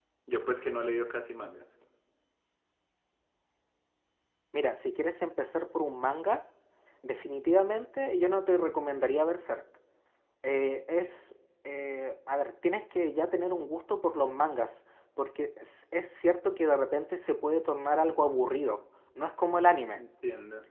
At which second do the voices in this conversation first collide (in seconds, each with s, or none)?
none